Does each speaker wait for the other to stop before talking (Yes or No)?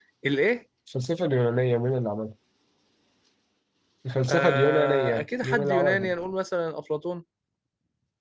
No